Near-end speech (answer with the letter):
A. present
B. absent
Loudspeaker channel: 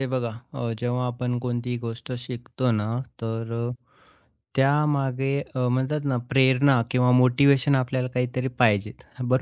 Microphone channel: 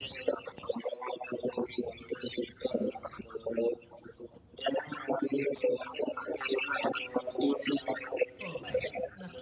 A